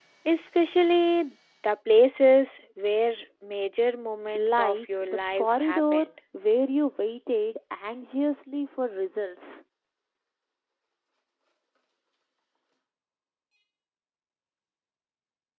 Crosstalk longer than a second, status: present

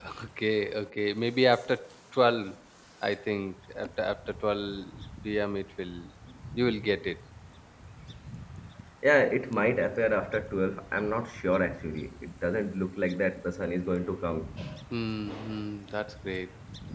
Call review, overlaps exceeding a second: none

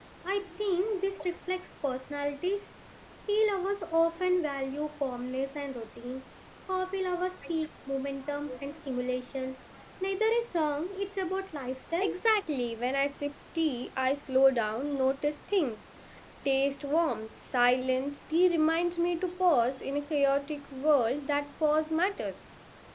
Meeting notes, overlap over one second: none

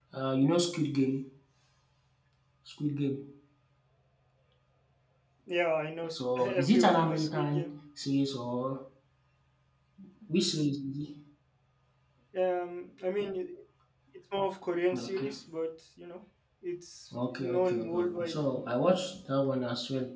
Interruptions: present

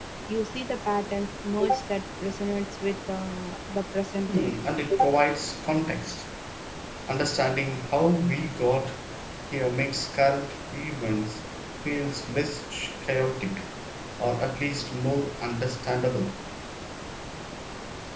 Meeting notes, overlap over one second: none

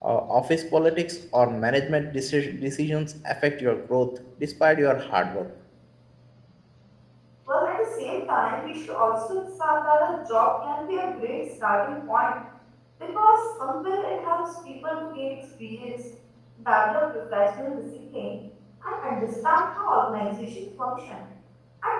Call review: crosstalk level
none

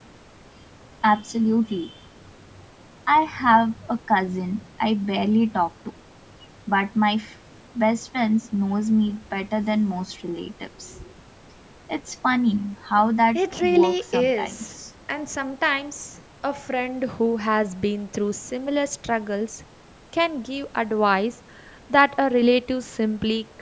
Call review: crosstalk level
present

